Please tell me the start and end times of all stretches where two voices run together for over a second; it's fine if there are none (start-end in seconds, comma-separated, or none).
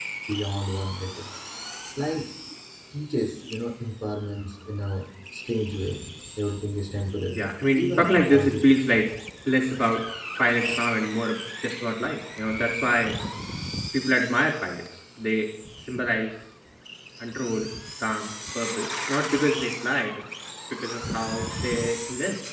7.4-8.8